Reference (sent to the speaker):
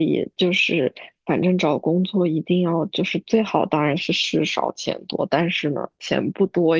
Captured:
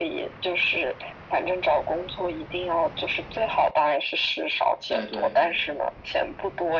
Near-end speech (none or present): present